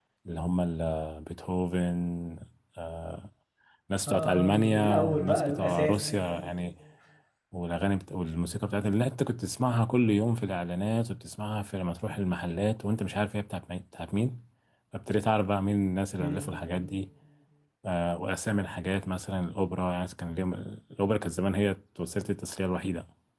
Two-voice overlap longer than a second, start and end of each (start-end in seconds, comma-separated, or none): 4.1-6.1